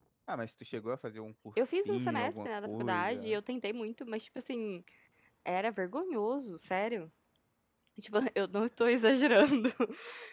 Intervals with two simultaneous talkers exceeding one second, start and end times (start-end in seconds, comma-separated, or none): 1.6-3.4